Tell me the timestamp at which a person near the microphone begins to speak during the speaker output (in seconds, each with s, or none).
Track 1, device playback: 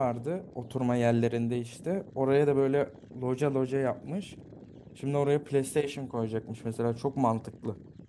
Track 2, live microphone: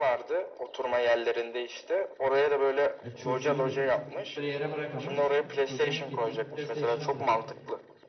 3.0 s